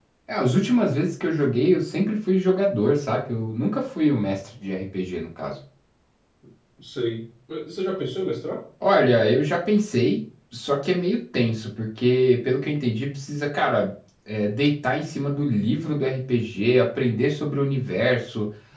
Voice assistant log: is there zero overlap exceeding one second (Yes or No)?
Yes